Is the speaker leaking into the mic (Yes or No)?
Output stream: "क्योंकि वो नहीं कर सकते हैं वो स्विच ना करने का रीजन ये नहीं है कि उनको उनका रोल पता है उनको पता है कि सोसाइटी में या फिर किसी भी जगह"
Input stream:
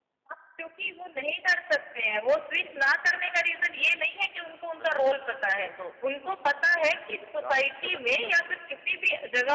Yes